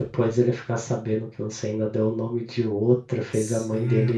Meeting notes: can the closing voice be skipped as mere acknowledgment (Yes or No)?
No